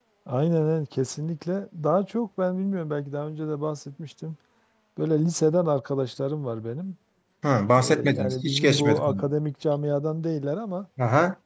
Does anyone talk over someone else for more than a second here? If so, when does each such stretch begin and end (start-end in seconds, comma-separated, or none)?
7.8-9.2